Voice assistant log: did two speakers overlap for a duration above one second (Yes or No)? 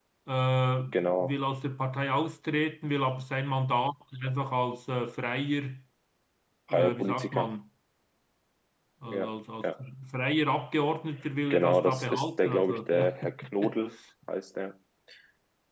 Yes